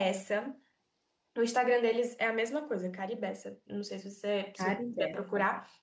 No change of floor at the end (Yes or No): Yes